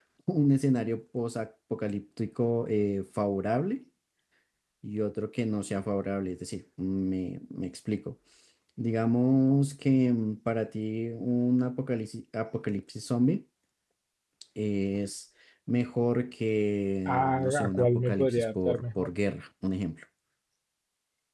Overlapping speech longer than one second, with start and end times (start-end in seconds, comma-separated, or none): 17.1-19.1